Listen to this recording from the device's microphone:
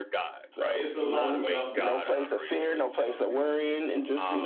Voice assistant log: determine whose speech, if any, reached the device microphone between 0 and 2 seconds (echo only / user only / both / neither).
both